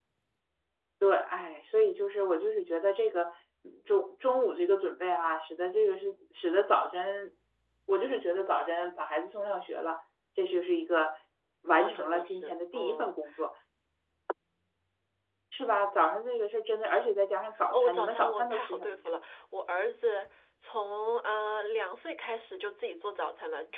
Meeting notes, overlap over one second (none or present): present